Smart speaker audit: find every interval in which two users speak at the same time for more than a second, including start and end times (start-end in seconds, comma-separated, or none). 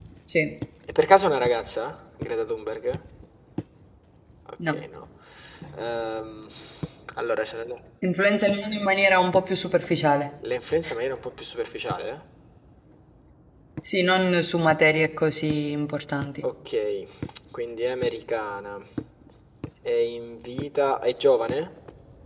none